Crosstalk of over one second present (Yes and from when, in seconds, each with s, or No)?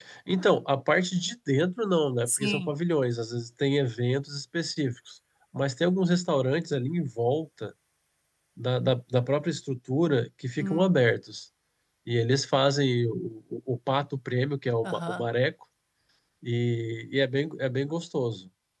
No